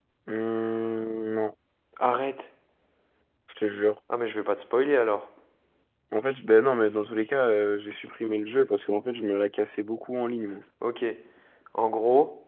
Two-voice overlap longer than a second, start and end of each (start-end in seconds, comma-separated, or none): none